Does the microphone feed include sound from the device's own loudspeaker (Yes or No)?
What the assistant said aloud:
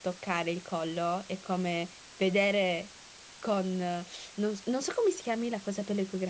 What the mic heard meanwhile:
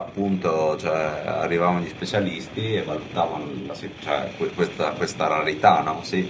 No